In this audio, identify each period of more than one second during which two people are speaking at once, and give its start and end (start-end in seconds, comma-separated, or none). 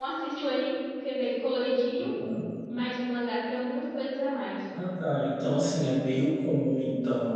none